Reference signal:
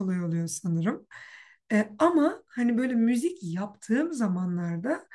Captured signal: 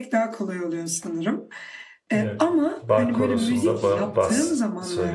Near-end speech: present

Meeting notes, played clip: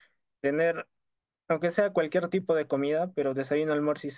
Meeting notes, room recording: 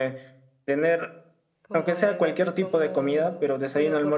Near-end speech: present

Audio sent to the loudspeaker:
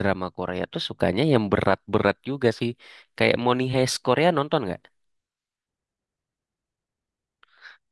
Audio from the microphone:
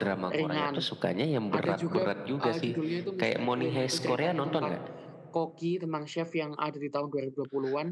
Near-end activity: present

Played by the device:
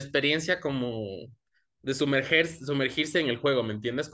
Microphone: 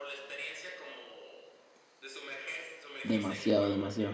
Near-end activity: present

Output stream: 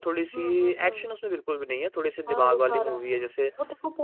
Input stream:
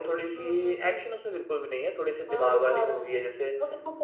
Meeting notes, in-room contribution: none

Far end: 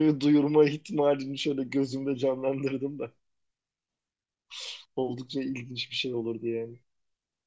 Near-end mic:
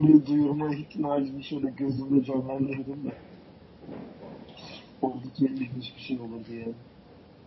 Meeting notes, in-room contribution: none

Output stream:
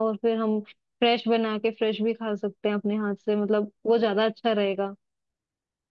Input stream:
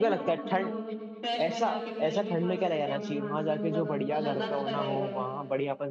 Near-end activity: present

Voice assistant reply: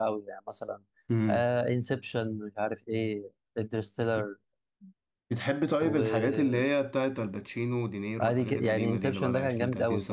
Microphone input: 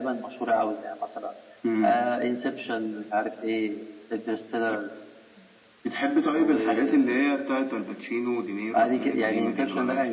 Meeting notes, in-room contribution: none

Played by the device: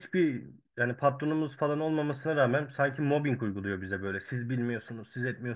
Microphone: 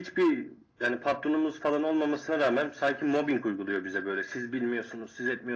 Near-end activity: none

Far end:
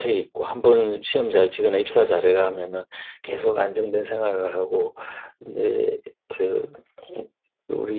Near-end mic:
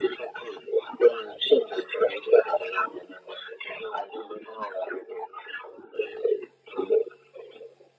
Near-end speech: none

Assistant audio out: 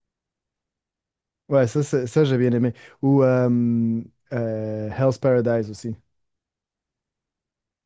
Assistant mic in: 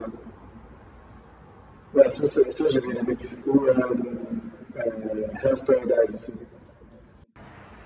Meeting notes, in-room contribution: none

